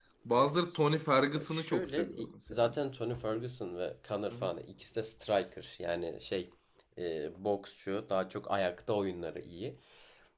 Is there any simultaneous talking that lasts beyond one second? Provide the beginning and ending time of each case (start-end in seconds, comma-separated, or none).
1.4-2.7